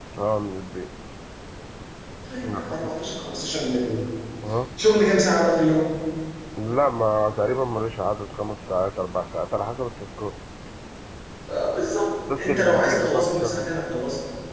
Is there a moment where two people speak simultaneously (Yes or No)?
Yes